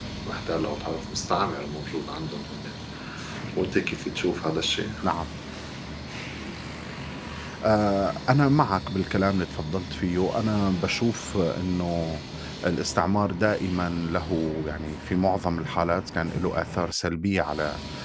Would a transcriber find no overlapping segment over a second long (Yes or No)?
Yes